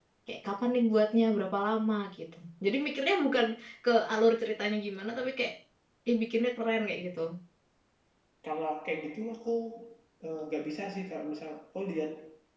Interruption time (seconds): none

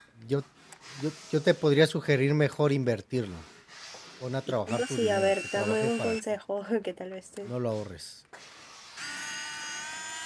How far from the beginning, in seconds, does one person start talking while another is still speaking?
4.5 s

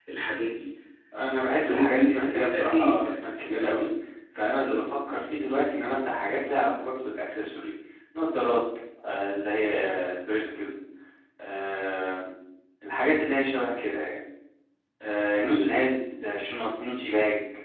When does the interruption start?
1.6 s

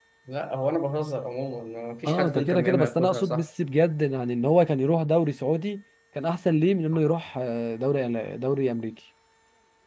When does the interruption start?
2.0 s

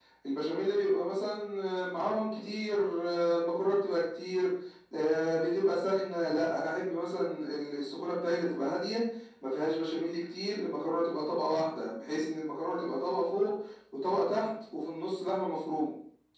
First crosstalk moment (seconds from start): none

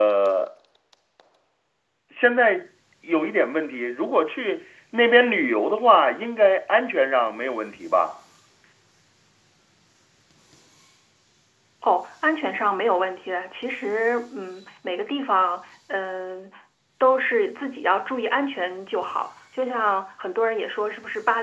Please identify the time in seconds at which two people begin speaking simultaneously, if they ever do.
none

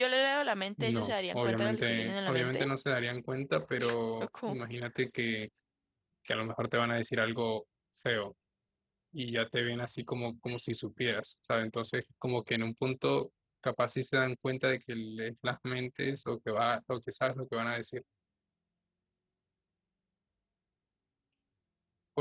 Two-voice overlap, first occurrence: 0.8 s

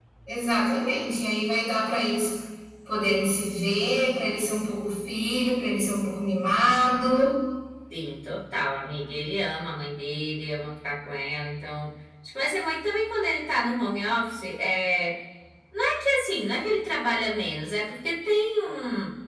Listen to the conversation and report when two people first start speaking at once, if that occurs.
none

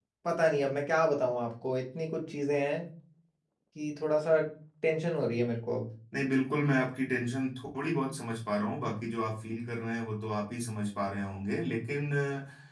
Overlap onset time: none

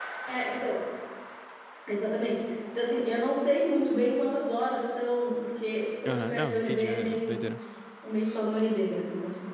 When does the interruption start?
6.0 s

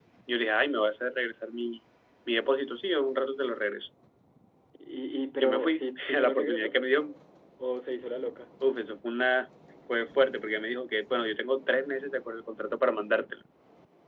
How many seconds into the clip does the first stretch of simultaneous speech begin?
5.4 s

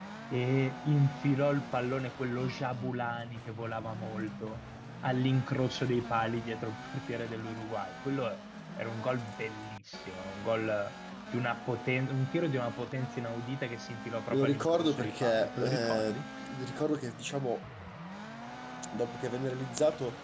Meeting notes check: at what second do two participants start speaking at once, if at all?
14.3 s

